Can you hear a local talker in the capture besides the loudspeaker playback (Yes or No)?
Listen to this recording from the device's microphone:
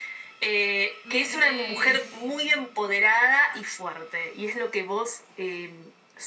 Yes